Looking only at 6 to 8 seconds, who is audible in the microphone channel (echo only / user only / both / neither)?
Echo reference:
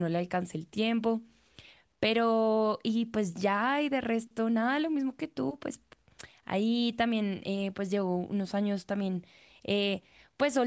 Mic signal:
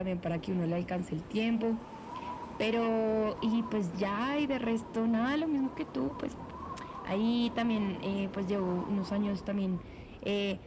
echo only